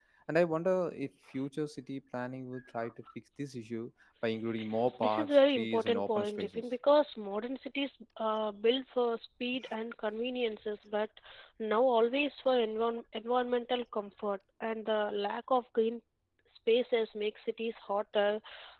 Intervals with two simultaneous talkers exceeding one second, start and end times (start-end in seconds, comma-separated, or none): 5.0-6.6